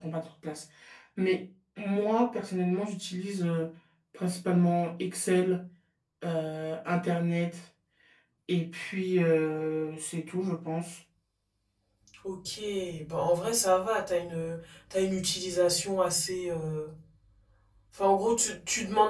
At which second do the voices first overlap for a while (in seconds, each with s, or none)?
none